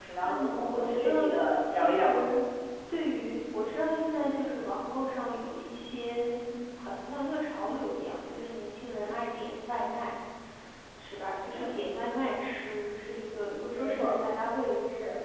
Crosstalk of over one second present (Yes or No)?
Yes